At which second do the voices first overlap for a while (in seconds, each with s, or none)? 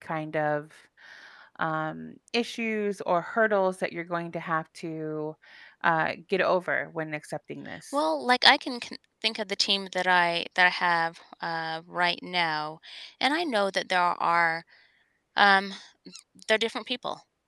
none